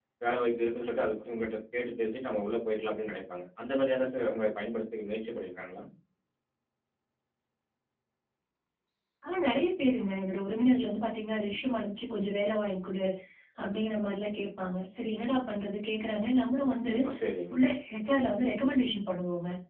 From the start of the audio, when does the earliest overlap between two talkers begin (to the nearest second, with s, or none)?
none